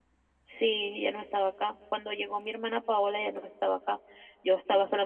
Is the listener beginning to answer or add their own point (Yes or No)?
No